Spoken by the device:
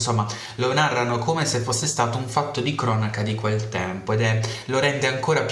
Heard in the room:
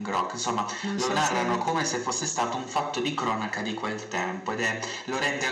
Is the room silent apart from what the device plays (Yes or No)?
No